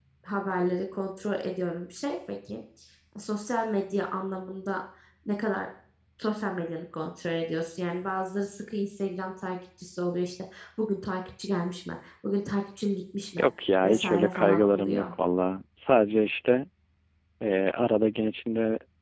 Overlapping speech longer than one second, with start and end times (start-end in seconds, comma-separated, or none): 13.8-15.1